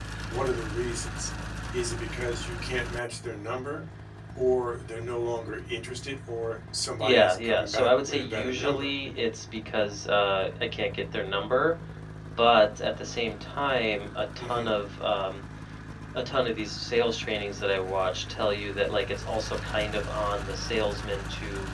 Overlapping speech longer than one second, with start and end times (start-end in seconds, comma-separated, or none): 7.0-8.9